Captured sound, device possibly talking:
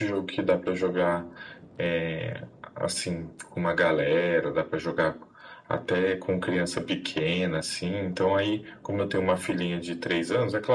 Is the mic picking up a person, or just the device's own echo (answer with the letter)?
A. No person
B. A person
A